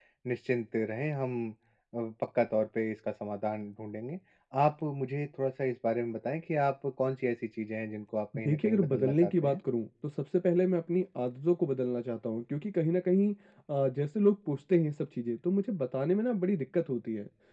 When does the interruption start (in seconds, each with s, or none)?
8.3 s